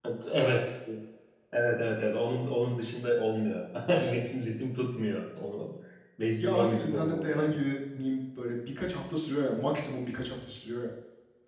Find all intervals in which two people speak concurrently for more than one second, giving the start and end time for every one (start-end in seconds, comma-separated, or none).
6.4-7.6